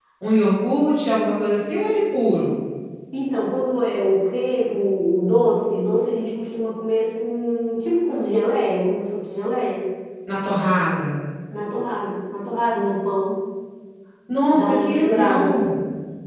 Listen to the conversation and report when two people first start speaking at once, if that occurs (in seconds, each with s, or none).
14.5 s